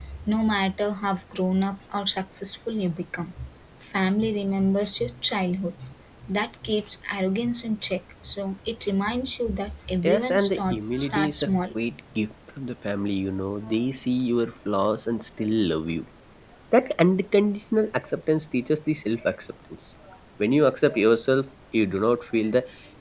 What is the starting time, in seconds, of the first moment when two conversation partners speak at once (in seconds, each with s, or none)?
10.0 s